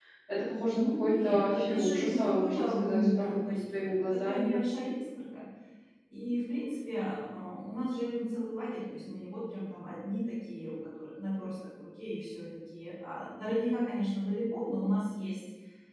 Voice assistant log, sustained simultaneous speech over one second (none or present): present